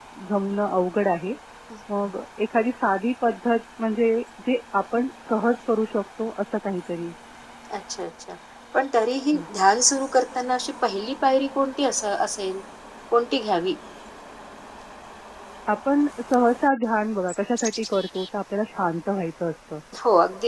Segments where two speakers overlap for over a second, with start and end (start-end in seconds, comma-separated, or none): none